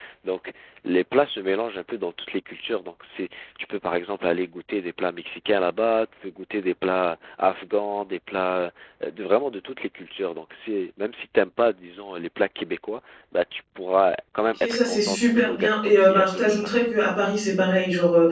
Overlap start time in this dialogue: 14.5 s

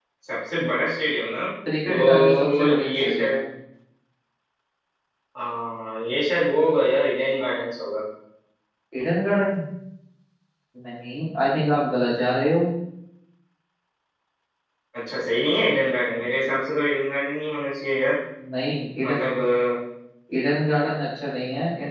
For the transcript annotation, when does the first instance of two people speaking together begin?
1.9 s

